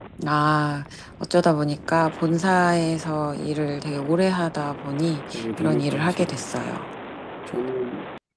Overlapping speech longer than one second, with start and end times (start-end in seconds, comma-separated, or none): 5.3-6.7